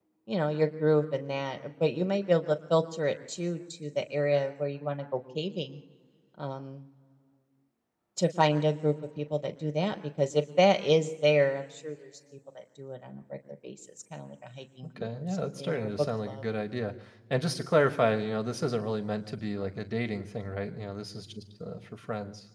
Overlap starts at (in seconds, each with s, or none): 15.0 s